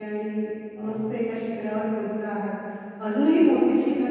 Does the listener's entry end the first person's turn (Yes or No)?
No